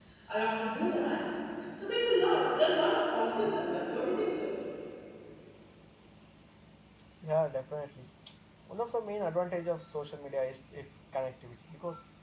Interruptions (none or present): none